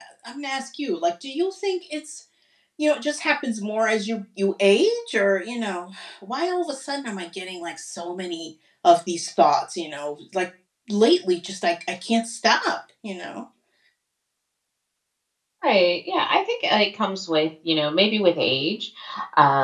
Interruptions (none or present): none